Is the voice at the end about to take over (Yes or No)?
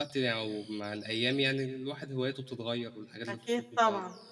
Yes